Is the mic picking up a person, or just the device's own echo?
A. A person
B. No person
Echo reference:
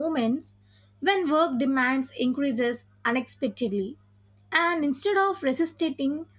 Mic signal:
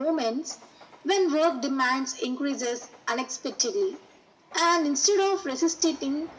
B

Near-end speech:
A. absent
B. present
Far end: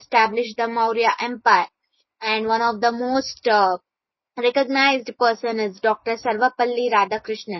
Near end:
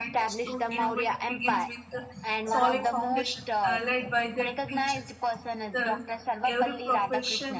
B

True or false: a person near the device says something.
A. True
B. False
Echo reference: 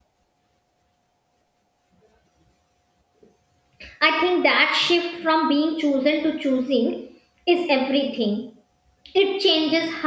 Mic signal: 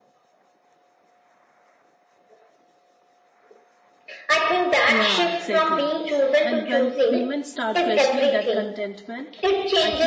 A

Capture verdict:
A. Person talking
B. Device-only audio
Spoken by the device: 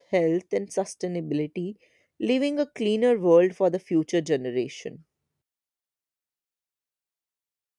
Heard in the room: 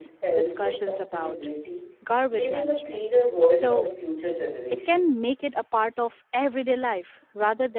A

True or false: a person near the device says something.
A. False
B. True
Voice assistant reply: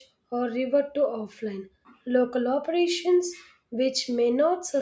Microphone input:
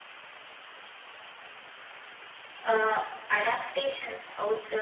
B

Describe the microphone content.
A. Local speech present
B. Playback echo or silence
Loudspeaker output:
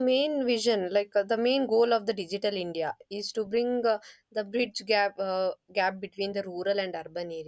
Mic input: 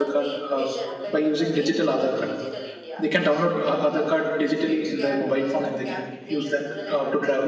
A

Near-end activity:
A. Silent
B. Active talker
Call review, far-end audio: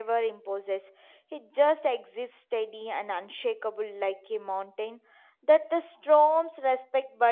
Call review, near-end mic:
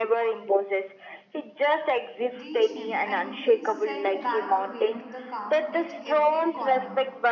B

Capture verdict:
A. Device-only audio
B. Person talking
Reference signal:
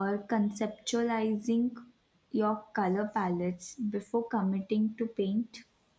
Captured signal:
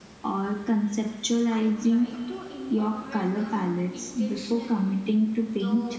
B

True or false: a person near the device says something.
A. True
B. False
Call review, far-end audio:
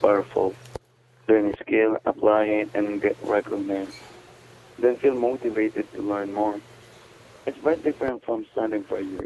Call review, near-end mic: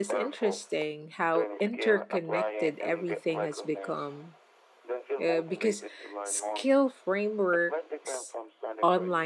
A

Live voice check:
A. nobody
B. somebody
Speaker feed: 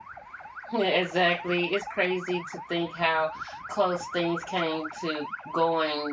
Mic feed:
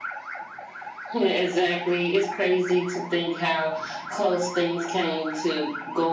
A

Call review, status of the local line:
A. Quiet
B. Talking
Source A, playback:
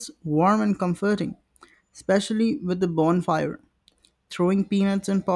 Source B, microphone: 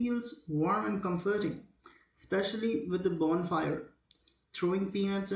A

